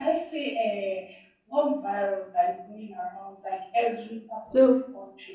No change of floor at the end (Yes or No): Yes